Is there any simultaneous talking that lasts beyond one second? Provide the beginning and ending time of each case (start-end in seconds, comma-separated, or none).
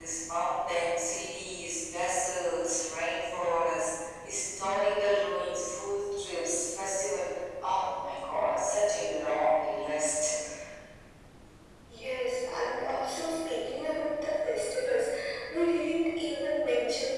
none